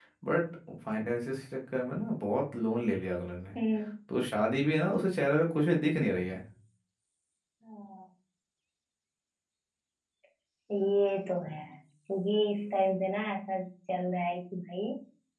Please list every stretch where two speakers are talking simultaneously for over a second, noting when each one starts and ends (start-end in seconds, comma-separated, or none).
none